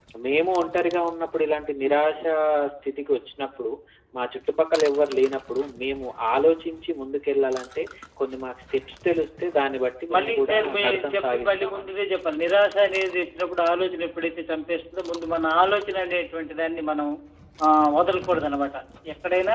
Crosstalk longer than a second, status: present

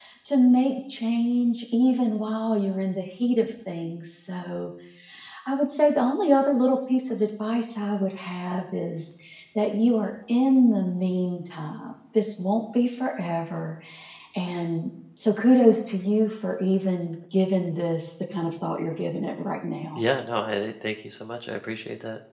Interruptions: none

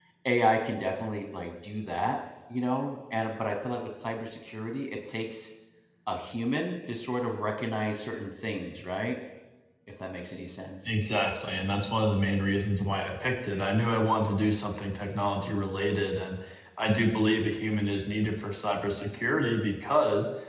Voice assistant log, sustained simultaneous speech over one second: none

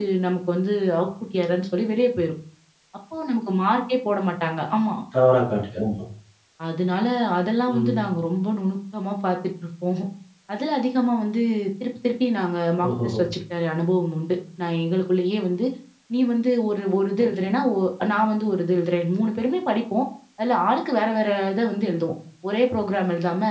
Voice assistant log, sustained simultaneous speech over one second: none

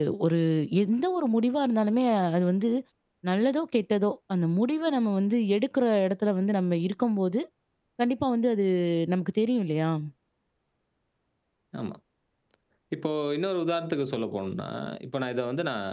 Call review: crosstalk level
none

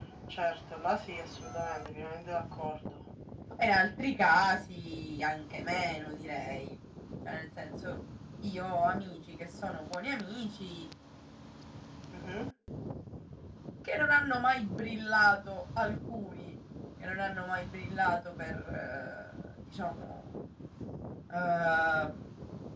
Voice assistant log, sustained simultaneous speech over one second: none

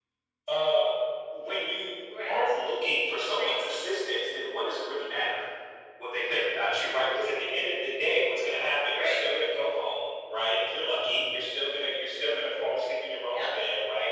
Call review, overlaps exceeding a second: none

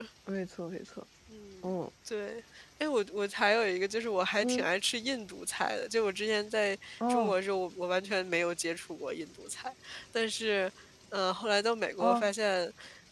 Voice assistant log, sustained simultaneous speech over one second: none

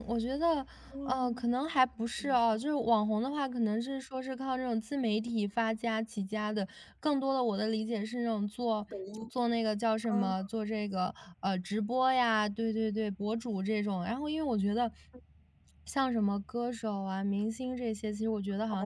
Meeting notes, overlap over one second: none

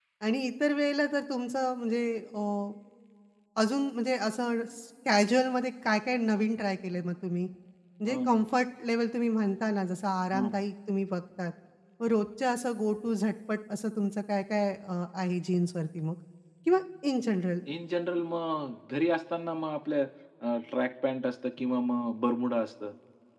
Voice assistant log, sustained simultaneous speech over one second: none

